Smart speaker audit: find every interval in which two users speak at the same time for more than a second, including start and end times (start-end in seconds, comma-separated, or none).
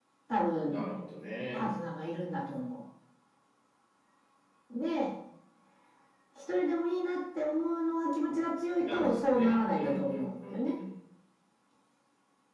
8.8-10.6